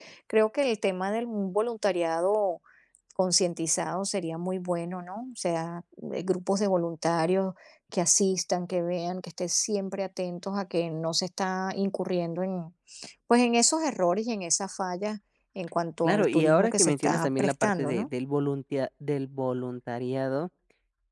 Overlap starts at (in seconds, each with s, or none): 16.0 s